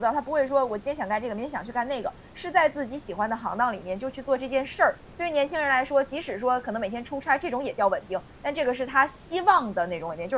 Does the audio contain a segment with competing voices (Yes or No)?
No